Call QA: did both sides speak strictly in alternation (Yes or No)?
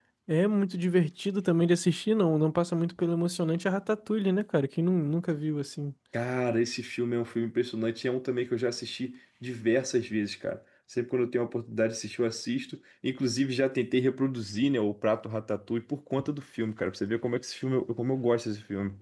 Yes